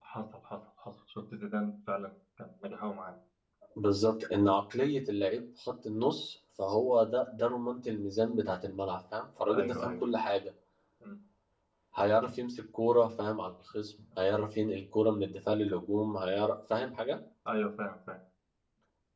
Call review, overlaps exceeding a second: none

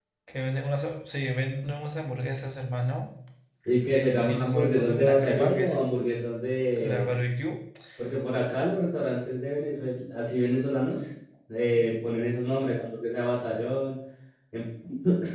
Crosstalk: present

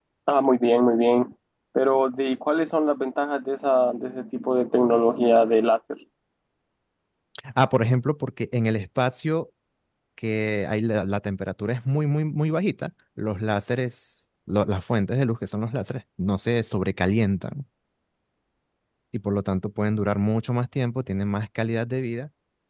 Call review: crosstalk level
none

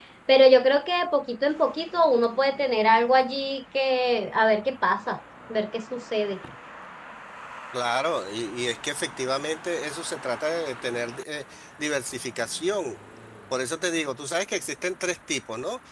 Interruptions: none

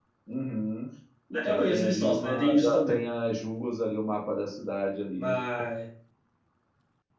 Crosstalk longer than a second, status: present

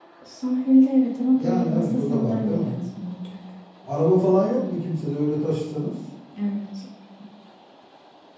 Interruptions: present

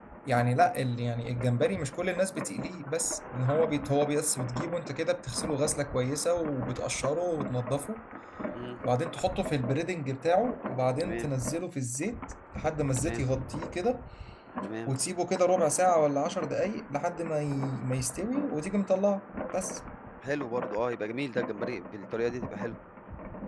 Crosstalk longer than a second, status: none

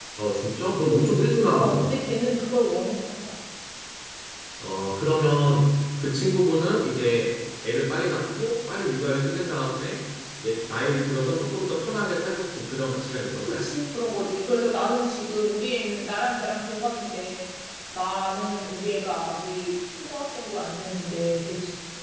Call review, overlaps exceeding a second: none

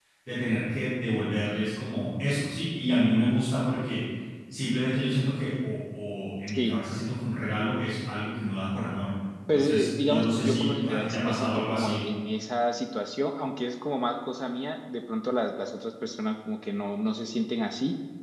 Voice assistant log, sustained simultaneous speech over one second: present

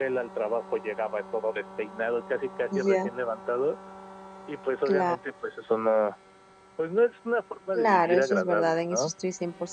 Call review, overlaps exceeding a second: present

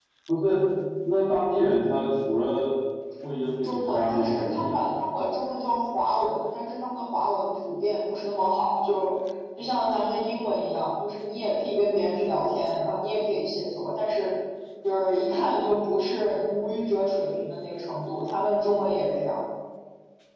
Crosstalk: present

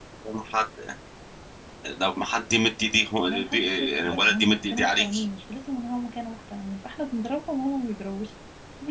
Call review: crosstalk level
present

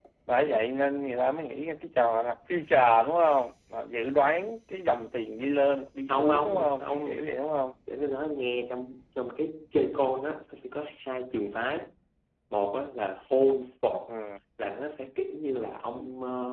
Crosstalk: present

